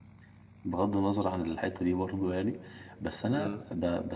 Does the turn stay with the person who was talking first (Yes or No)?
Yes